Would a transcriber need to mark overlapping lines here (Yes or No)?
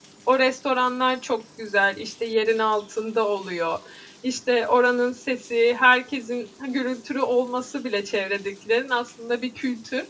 No